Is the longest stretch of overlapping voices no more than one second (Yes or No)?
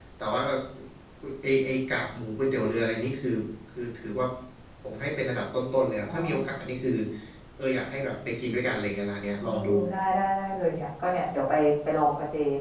Yes